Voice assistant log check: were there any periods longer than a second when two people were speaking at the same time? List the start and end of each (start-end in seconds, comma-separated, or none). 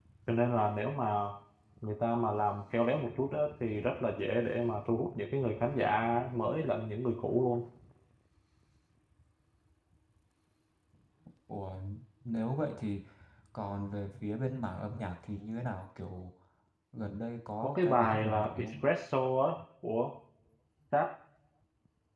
17.6-18.8